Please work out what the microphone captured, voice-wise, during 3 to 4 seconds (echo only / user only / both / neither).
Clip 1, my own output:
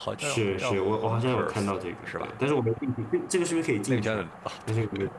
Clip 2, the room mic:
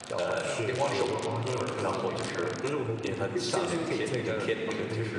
both